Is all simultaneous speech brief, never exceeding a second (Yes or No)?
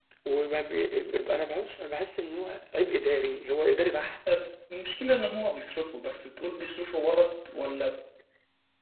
Yes